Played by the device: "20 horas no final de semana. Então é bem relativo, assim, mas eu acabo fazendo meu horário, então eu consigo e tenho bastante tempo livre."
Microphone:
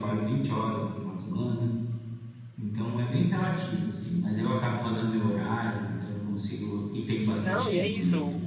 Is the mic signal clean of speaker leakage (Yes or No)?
No